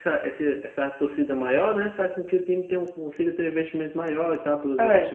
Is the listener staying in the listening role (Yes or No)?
No